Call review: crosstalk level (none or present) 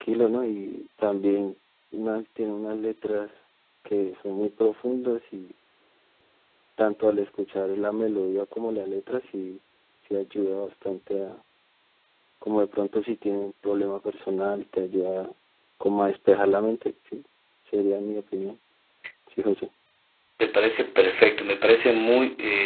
none